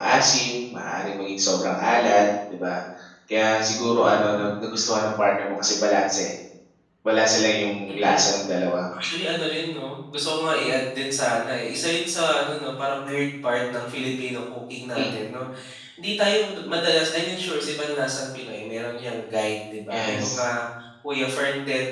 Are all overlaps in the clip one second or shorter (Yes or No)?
Yes